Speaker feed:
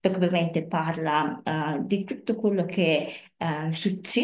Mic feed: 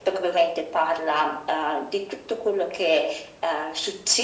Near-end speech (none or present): none